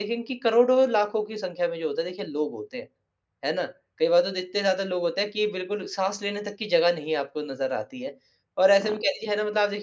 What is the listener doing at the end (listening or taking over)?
listening